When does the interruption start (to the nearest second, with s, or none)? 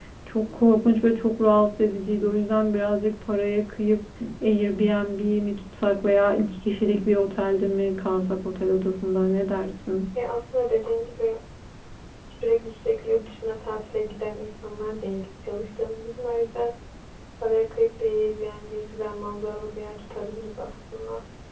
none